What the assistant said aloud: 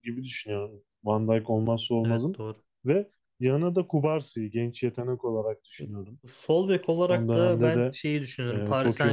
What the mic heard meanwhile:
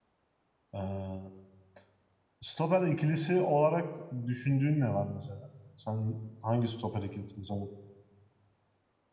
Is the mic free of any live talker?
No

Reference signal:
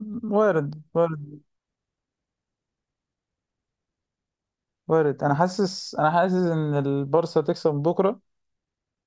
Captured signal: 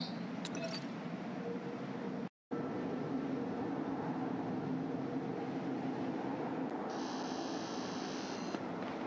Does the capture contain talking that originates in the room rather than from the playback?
No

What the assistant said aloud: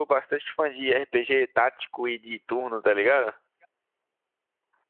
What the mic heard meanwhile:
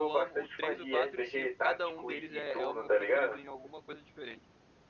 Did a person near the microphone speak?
Yes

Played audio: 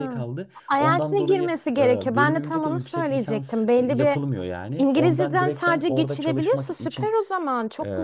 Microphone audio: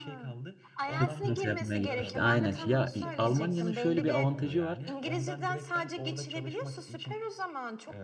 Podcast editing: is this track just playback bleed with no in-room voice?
No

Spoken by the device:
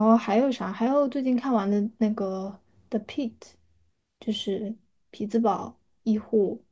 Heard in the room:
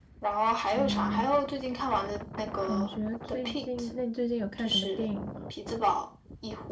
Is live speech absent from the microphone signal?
No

